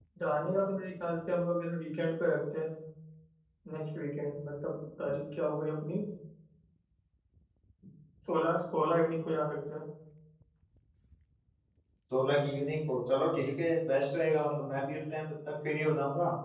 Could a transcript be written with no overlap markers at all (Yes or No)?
Yes